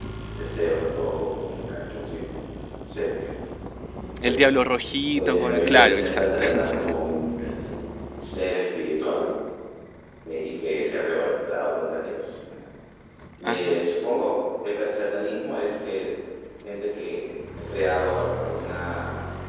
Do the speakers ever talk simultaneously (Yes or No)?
Yes